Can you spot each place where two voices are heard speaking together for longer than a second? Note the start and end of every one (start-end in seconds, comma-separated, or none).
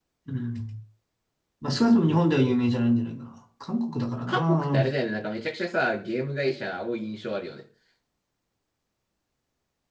none